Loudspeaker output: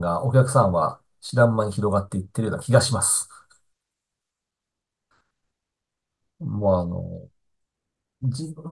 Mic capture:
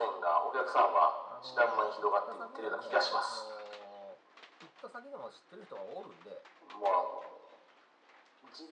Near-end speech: present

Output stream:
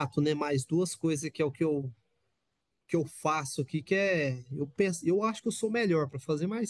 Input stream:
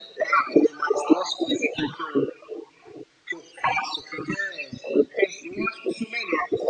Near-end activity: none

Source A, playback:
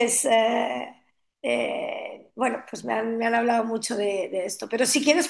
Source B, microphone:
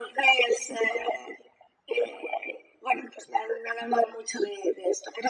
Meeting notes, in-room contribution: none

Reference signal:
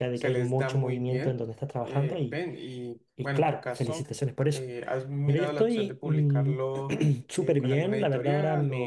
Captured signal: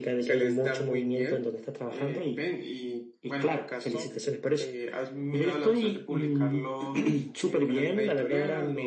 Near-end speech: none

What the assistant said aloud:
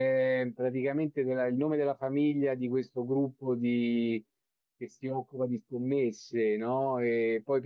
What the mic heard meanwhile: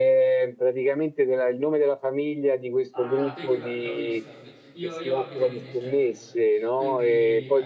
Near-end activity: present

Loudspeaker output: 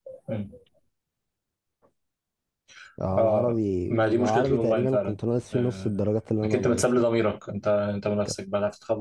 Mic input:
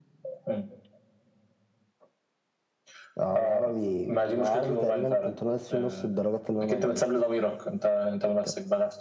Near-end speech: none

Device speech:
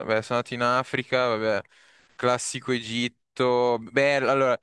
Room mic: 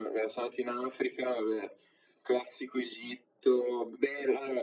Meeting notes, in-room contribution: none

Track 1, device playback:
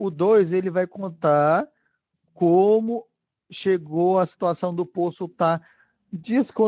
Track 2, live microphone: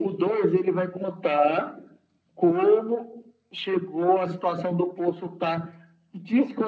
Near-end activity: none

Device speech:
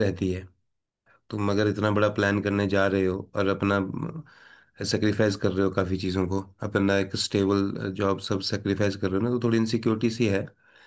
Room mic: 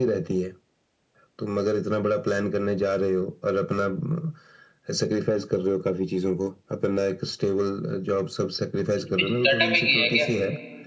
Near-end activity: present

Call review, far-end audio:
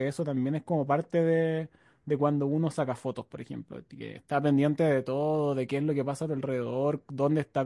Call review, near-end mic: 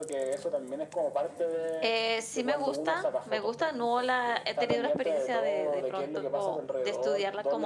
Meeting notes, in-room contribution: present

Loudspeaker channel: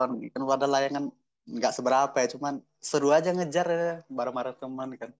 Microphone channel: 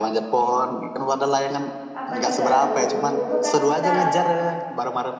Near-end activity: present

